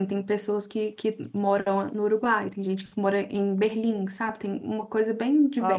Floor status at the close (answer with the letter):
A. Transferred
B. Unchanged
A